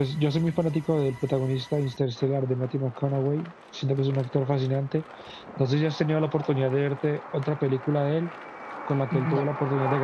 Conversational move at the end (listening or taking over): listening